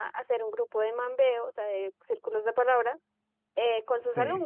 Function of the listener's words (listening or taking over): listening